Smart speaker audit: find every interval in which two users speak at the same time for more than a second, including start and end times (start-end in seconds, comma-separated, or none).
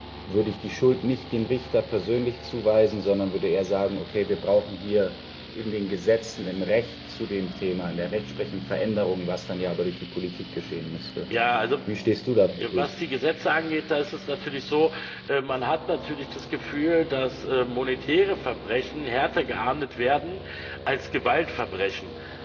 none